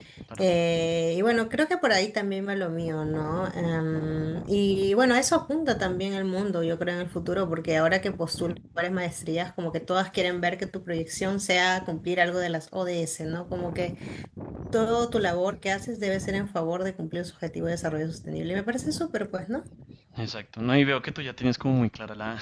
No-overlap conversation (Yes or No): Yes